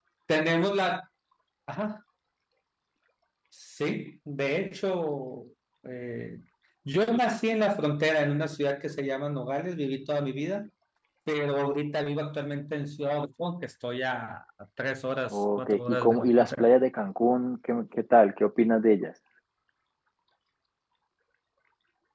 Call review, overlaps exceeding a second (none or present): present